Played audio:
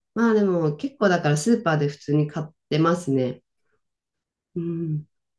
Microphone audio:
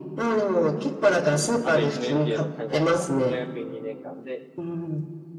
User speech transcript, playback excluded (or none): あと1年っていうのを考えたら、大学院2年間で、